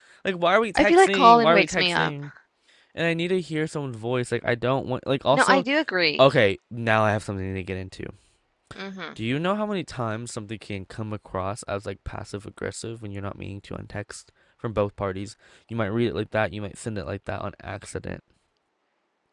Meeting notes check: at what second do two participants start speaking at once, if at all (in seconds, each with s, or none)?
0.8 s